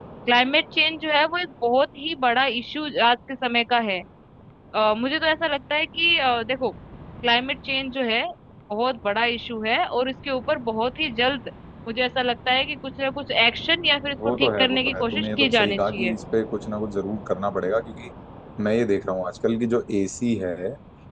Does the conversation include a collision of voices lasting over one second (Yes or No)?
Yes